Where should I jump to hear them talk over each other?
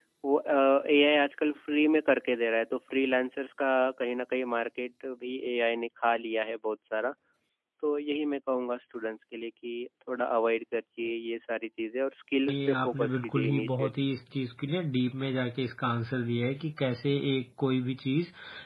12.5 s

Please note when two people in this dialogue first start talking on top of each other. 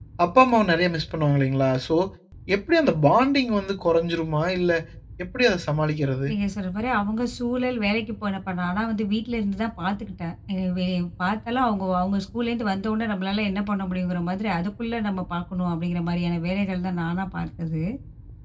none

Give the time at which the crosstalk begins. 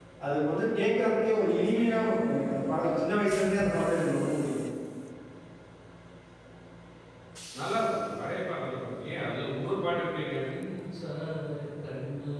none

